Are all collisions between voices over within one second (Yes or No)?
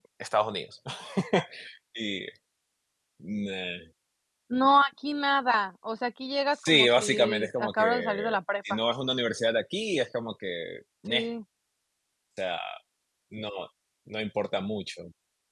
No